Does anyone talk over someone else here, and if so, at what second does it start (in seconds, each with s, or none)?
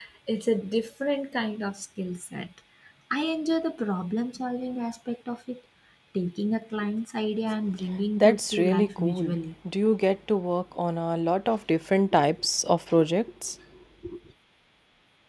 8.2 s